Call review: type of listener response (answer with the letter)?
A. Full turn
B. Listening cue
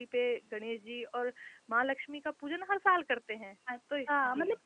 A